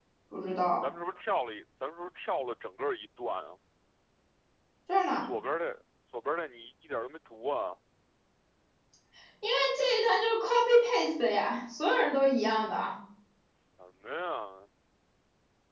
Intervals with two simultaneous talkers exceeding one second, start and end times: none

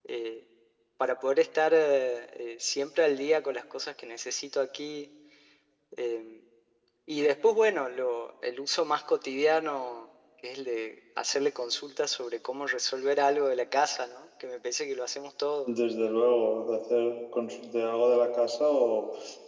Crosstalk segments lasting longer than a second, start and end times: none

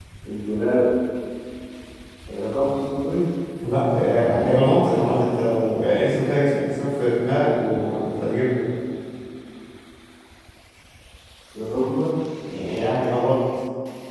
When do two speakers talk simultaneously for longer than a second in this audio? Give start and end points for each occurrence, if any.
none

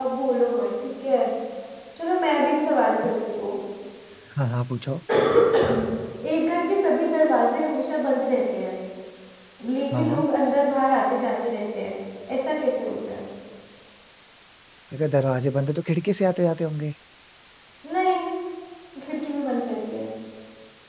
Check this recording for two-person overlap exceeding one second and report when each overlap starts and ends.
none

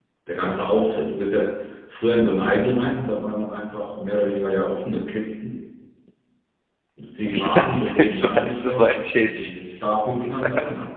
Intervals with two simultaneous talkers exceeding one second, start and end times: 7.3-9.5

